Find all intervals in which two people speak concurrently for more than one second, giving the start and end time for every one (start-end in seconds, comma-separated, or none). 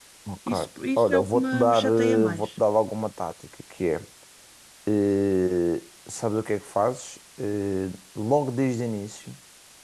1.0-2.5